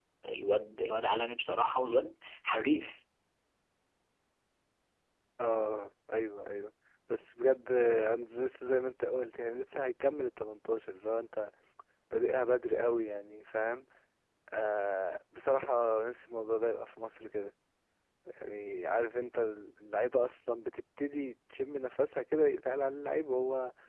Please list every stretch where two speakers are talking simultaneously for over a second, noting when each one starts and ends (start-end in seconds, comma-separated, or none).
none